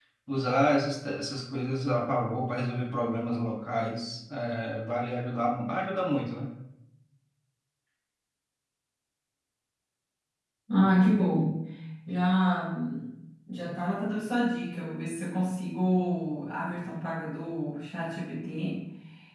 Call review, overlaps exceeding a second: none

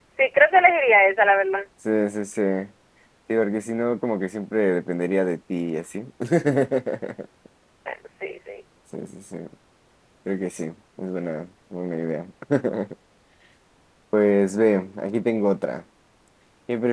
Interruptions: none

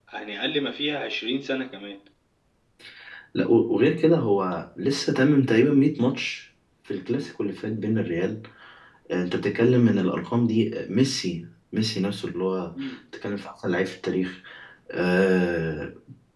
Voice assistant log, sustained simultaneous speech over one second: none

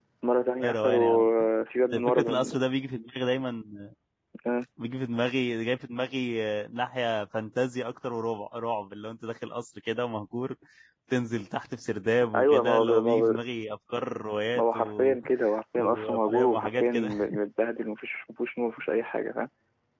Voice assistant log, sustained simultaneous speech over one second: present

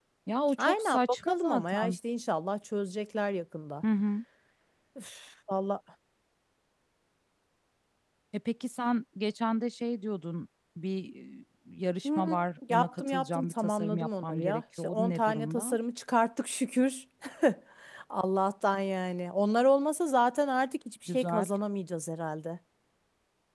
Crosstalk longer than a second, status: present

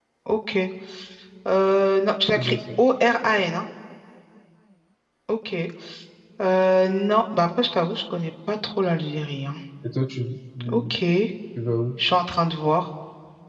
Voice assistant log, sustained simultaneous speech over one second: none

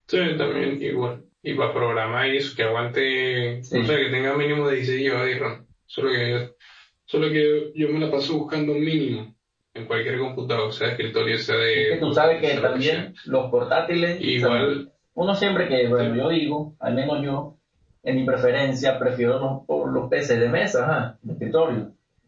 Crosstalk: present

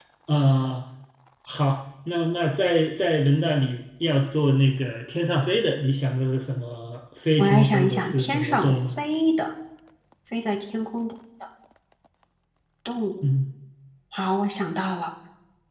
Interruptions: present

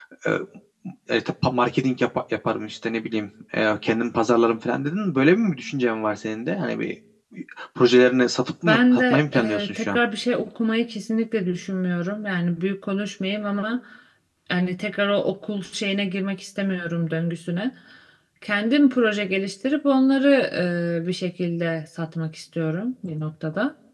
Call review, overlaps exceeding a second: present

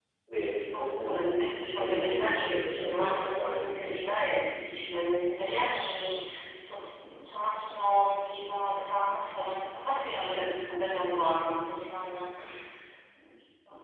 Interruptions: present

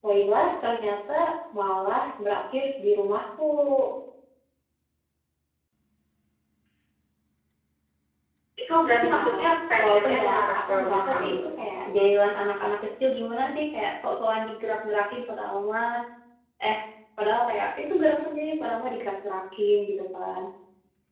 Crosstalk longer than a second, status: present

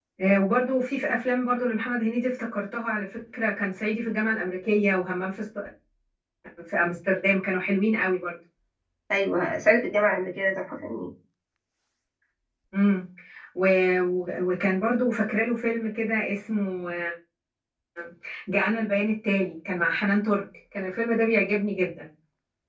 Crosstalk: none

